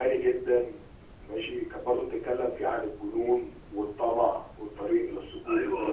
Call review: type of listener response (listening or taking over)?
taking over